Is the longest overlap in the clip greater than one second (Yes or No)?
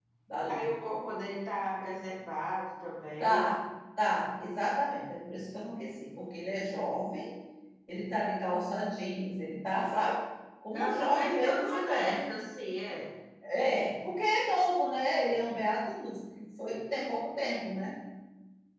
Yes